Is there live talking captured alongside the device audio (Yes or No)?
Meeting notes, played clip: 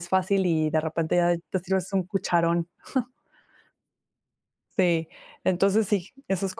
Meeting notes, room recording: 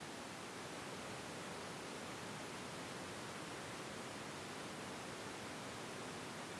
No